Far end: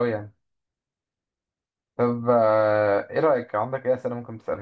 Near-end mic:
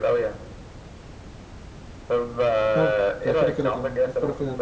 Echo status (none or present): present